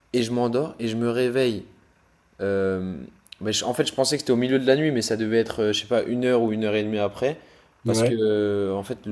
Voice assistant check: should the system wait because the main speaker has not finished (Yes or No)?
Yes